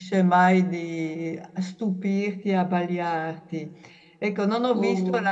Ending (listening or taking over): listening